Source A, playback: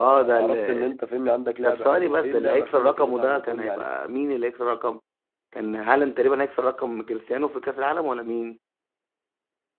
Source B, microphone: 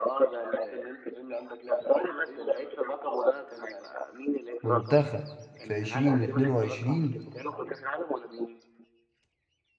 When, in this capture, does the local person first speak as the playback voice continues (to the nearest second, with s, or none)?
5 s